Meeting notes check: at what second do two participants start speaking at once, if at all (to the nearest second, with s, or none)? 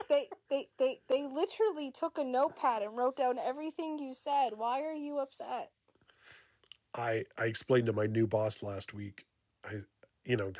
none